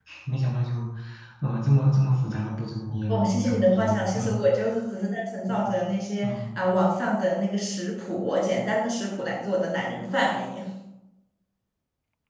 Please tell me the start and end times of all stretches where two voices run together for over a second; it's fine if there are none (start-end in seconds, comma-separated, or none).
3.1-4.3